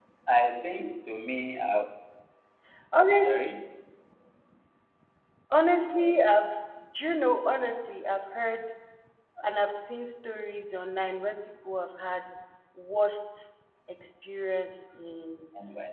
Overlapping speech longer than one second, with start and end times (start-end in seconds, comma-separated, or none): none